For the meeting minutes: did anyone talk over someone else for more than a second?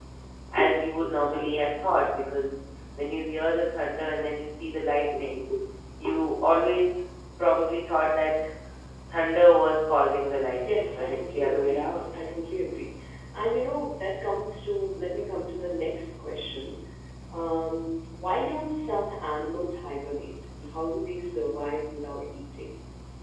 Yes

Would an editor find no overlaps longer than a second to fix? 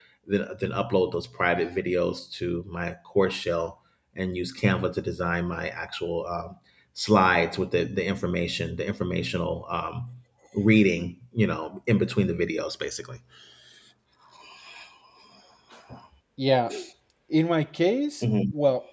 Yes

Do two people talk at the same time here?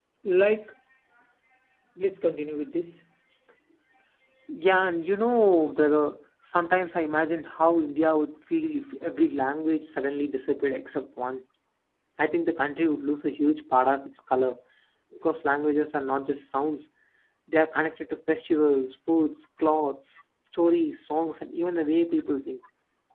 No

